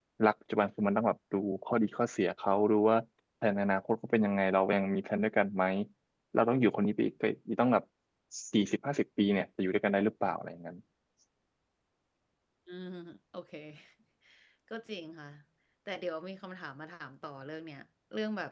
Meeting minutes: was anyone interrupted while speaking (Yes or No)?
No